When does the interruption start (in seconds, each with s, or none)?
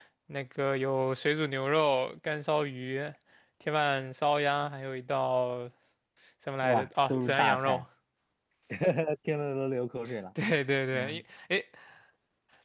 6.6 s